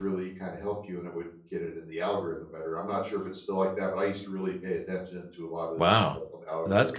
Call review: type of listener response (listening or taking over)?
taking over